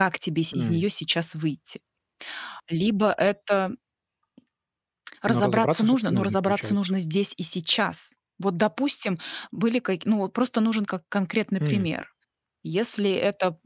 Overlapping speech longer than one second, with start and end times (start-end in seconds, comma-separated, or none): 5.3-6.8